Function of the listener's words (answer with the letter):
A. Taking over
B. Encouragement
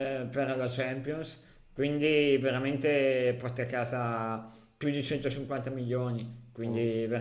B